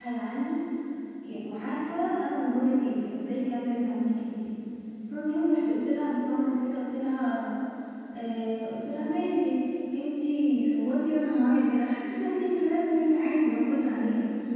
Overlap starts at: none

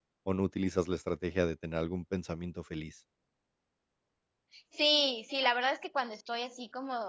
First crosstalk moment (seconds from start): none

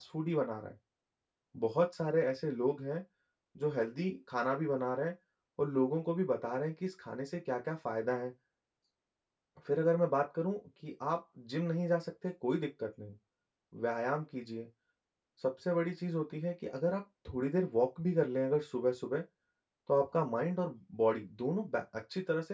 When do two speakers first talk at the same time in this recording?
none

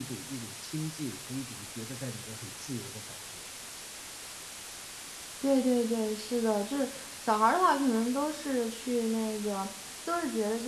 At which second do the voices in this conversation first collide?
none

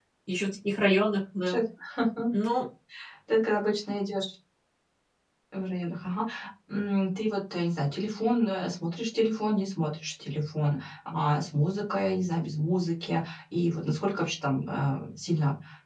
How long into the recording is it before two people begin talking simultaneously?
none

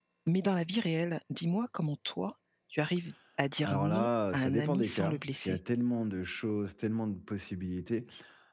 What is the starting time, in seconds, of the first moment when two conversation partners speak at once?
3.6 s

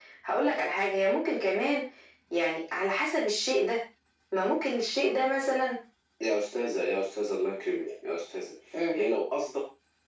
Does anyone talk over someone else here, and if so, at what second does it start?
none

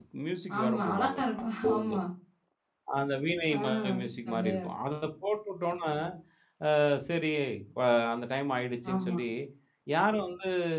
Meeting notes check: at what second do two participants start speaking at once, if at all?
0.6 s

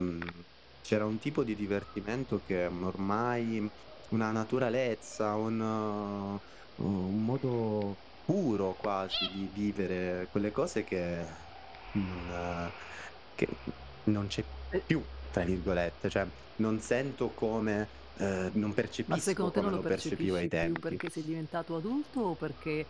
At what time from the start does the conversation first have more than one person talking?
19.1 s

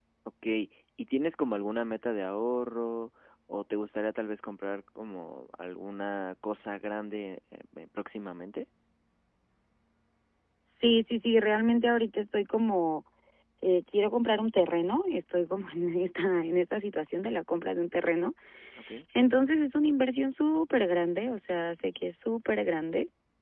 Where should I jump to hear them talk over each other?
none

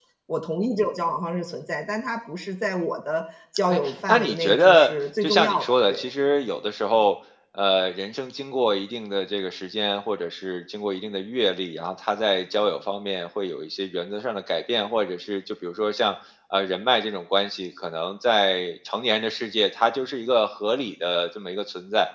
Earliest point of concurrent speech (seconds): 3.7 s

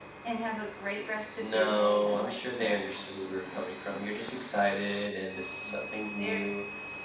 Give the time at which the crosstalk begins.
1.4 s

